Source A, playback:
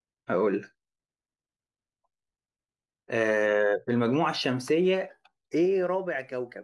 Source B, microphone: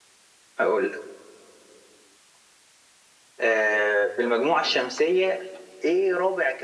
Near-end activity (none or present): none